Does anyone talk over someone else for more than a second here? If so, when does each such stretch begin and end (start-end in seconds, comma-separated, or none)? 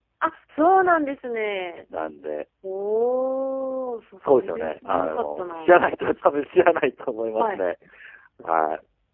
4.2-5.8